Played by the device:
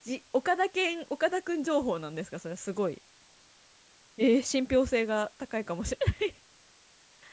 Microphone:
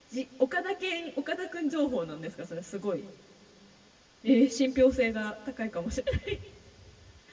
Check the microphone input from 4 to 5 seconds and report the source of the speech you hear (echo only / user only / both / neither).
echo only